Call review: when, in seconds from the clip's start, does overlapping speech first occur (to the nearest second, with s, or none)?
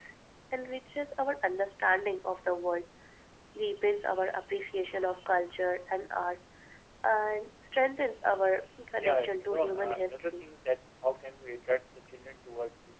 9 s